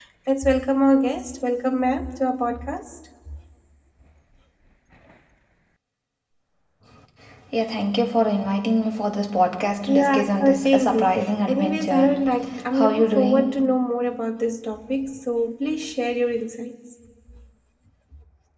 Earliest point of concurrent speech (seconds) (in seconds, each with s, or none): 9.9 s